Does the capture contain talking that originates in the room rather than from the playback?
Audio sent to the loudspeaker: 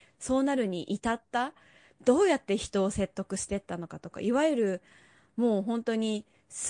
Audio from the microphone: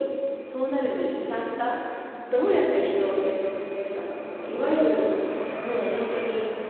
No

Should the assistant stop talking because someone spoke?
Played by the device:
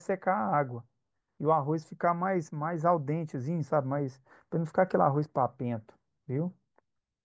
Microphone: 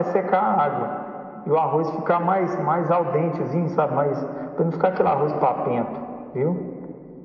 No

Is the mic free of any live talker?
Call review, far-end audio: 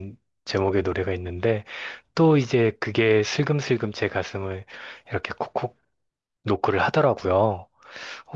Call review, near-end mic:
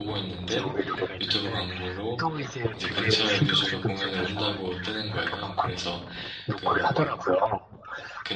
No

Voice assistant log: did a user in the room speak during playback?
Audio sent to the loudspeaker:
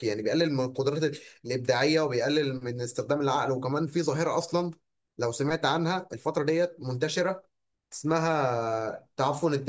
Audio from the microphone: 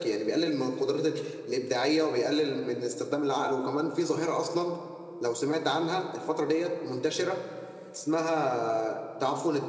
No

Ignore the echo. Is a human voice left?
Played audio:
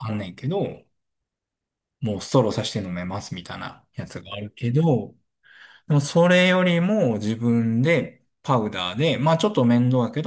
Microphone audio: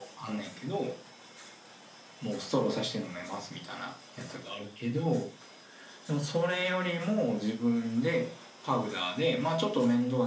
No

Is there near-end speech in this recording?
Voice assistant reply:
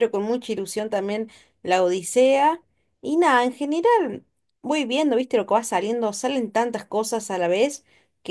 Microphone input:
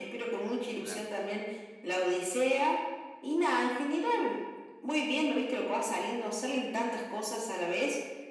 Yes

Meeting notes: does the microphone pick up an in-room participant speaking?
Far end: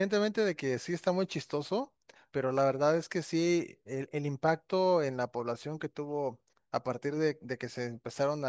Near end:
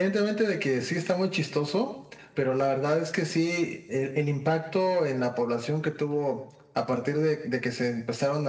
No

